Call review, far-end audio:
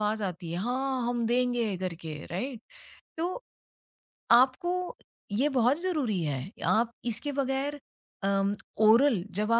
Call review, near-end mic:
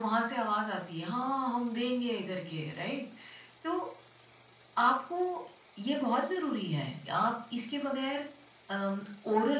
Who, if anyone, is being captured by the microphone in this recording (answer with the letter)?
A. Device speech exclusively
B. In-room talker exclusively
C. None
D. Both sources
A